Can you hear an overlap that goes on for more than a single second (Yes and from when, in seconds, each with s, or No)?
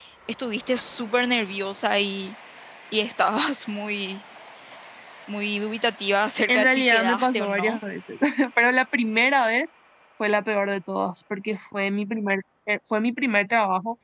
Yes, from 6.5 s